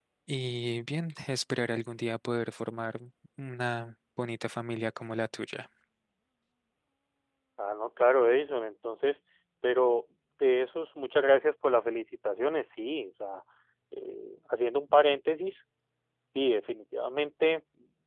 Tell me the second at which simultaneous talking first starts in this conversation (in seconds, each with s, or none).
none